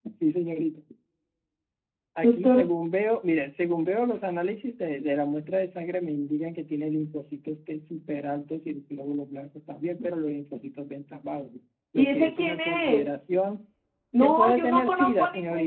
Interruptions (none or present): present